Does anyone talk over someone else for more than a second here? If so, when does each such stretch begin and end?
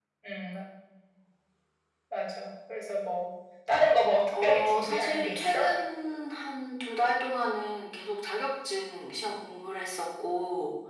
4.4-5.7

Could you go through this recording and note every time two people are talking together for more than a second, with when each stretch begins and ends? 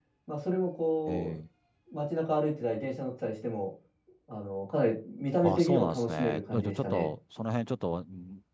5.4-7.1

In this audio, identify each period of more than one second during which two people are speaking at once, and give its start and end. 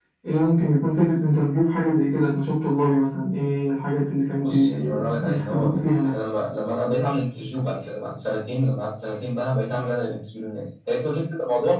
4.4-6.2

